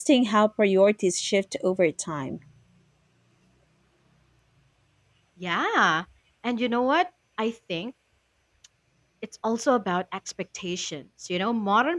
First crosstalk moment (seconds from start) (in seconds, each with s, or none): none